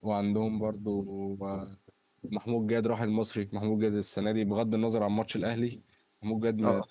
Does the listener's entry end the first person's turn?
No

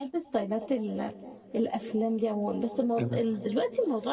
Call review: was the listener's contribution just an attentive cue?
Yes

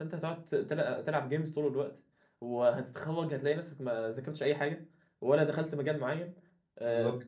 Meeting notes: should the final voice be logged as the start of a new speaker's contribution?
No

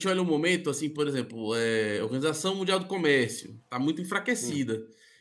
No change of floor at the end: Yes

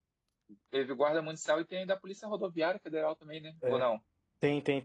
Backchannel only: No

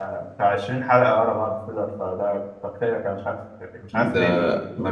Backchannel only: No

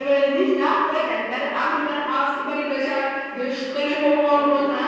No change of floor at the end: Yes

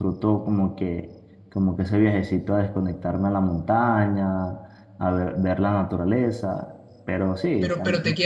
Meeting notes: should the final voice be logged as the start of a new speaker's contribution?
Yes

